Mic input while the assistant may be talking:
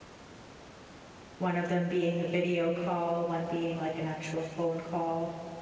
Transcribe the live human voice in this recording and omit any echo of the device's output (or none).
One of them being a video call, one being like an actual phone call.